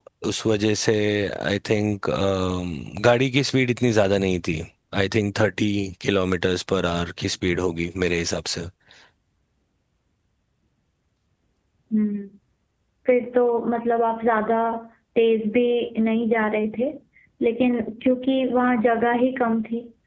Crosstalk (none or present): none